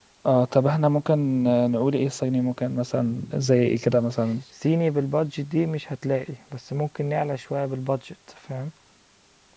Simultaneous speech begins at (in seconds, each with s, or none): none